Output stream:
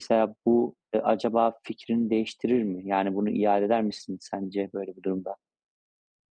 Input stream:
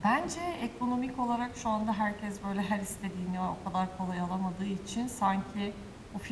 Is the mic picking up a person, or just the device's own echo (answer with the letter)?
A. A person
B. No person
A